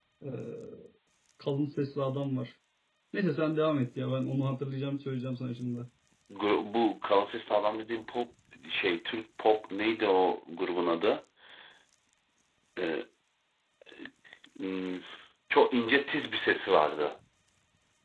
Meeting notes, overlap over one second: none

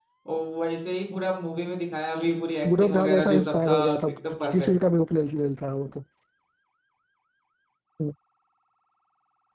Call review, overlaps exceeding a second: present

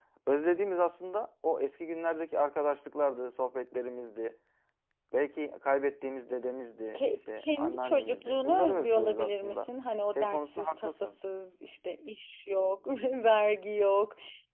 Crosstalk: present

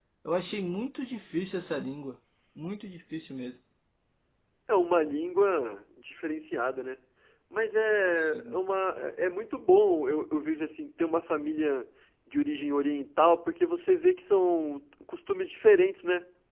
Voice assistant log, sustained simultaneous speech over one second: none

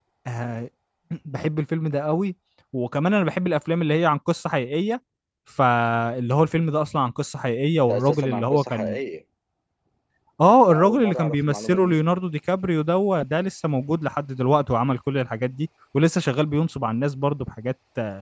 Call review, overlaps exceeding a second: present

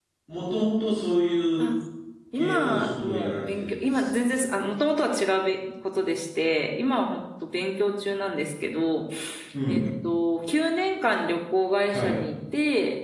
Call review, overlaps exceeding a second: present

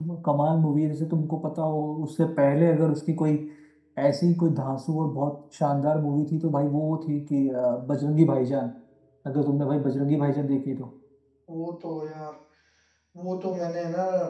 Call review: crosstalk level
none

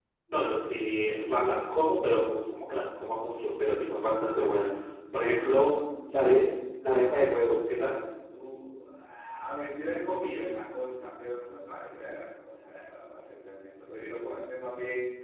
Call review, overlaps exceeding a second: none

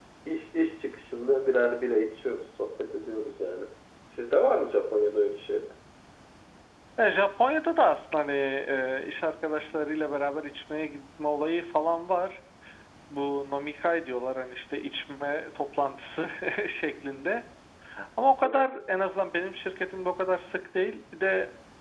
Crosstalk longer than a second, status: none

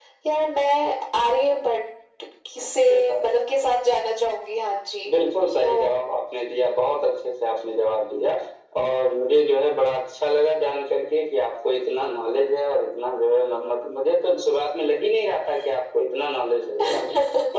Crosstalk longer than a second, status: none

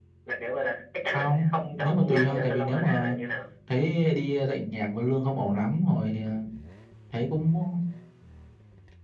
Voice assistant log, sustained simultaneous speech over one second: present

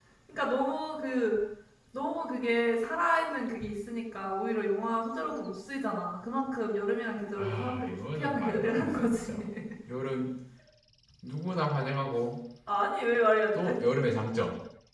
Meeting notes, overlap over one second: present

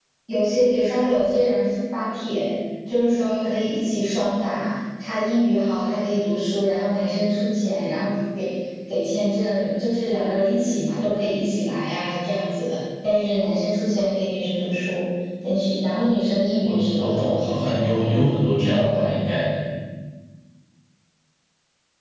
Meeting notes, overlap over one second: present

